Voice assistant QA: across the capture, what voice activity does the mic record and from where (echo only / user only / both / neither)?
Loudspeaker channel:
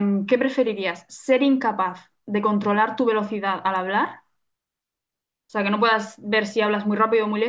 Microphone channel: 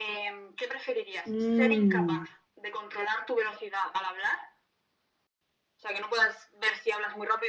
both